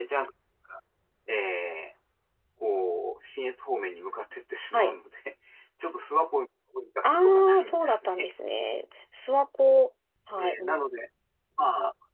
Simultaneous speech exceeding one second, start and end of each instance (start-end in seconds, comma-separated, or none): 7.0-8.3